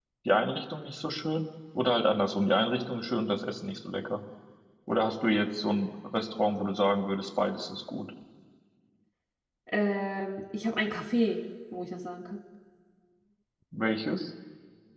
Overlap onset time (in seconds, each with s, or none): none